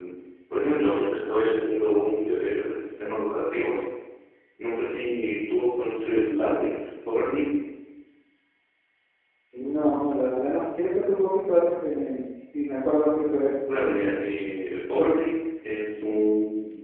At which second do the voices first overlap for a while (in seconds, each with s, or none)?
none